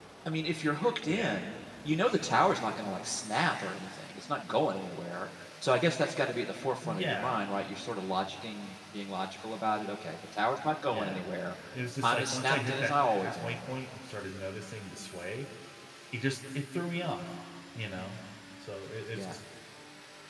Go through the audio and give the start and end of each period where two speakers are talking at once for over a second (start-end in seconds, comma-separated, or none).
12.0-13.6